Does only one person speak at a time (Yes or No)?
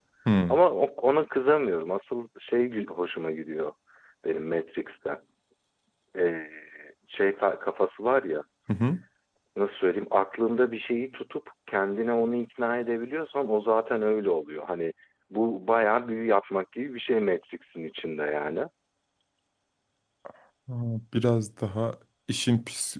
Yes